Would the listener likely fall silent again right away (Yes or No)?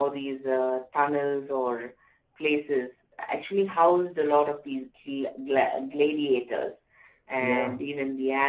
Yes